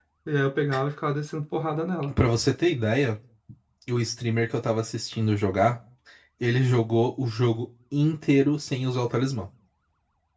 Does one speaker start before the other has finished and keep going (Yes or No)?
No